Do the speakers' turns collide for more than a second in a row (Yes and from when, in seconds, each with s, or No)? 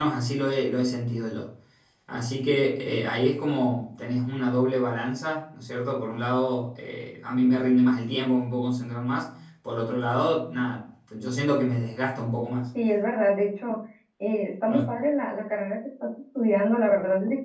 No